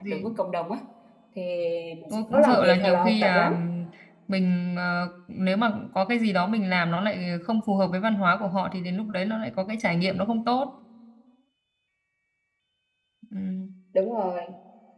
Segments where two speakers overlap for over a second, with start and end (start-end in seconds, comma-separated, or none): 2.1-3.5